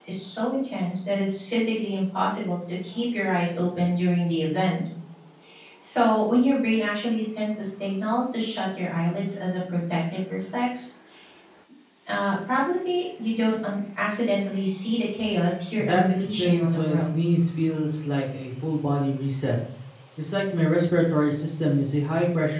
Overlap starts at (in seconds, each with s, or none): 15.8 s